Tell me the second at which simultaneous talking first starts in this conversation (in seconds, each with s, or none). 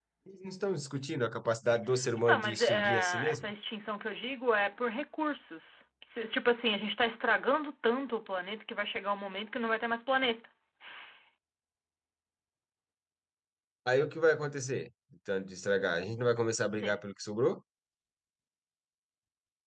2.2 s